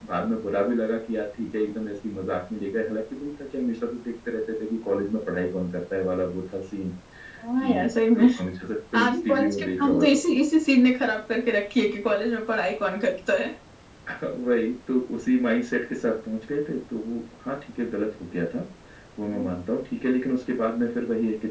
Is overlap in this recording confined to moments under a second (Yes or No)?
No